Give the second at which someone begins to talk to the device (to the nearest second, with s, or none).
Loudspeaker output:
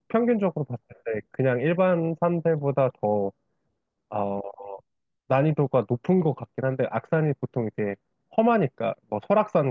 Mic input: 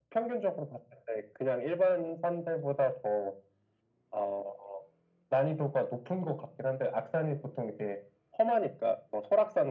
none